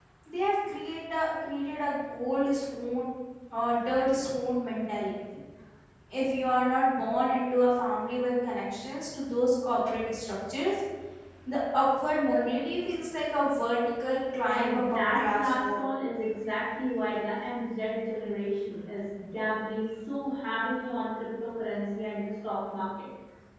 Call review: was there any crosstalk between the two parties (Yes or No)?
Yes